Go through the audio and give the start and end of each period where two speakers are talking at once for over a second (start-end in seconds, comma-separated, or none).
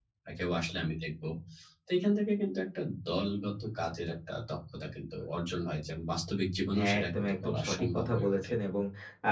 7.0-8.5